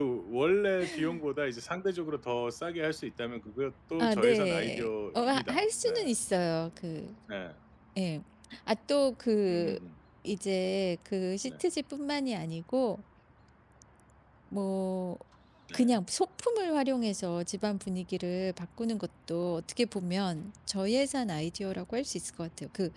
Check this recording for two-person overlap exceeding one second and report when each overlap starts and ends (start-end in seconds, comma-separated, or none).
4.0-5.9